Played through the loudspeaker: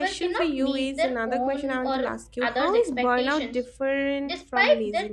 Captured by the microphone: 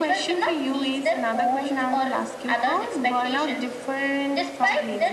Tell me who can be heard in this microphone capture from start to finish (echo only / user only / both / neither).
echo only